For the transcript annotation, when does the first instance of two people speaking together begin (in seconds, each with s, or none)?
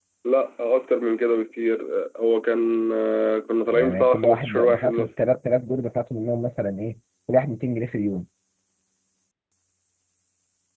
3.6 s